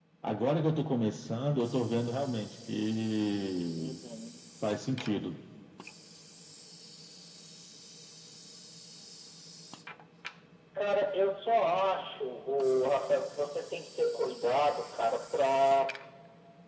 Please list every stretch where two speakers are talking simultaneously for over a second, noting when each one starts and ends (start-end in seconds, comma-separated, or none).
none